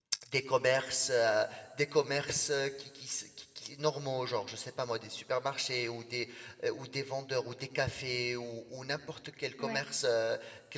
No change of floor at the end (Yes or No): Yes